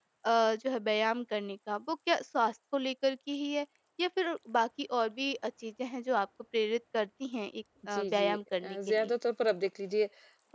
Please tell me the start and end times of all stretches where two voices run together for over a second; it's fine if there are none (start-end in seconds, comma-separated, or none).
7.9-9.1